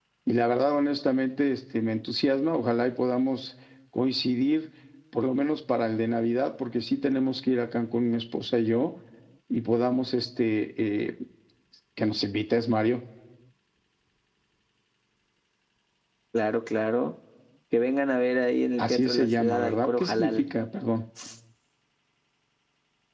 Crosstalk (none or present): present